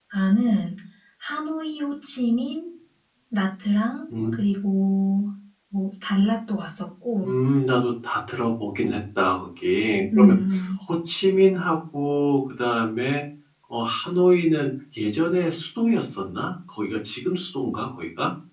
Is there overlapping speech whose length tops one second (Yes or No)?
No